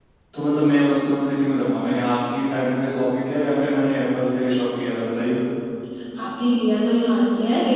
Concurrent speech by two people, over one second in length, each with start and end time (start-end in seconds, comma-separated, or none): none